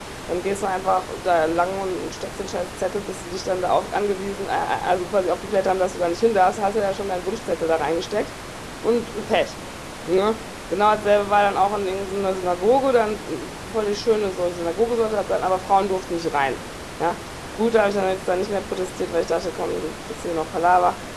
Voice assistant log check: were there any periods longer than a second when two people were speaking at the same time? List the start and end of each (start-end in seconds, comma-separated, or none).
none